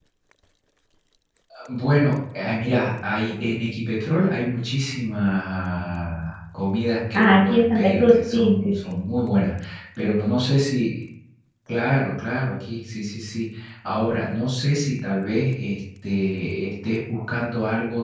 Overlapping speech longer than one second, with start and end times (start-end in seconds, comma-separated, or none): 7.1-9.0